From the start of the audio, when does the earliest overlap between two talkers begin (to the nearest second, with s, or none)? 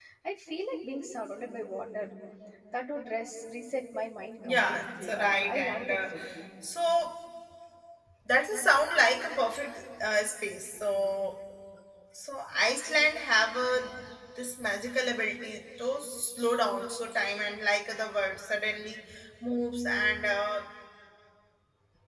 4 s